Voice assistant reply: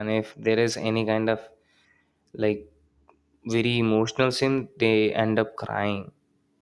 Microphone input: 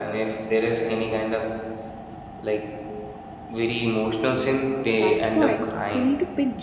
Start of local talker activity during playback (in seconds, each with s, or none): 4.9 s